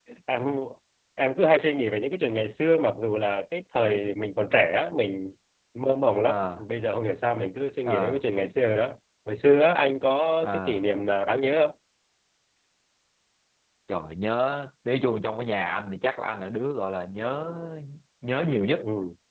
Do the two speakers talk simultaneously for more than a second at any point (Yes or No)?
No